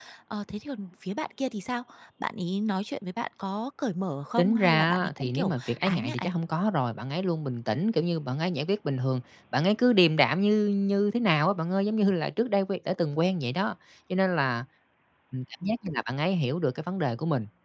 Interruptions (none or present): present